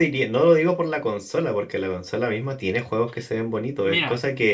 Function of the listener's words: taking over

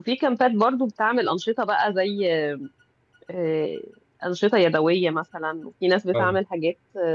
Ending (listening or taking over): listening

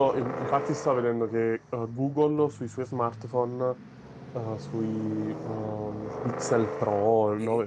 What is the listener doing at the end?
listening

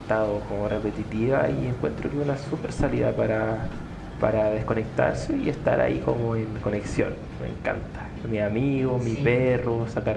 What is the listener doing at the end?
listening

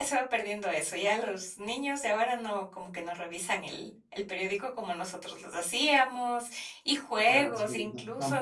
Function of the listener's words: taking over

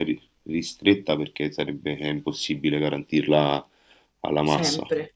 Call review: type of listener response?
listening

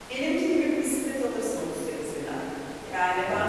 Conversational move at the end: listening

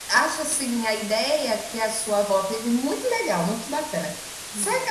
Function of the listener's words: listening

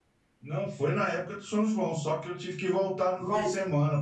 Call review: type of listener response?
listening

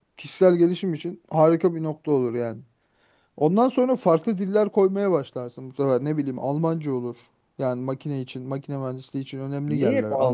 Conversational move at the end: taking over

